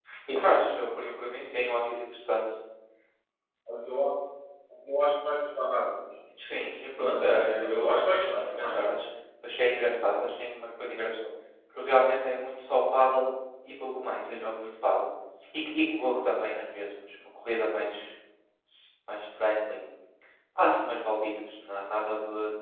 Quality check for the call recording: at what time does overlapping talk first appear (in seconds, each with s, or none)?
7.0 s